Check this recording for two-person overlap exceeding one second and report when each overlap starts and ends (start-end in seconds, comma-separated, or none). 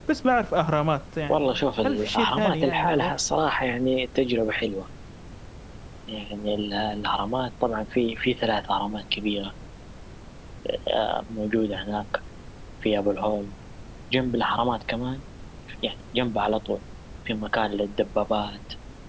1.3-3.1